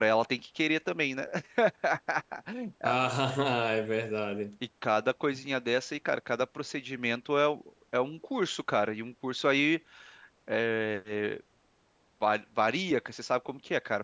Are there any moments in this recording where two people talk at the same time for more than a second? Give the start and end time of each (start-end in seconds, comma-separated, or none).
none